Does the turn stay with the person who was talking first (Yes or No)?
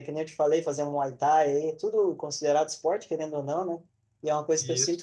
Yes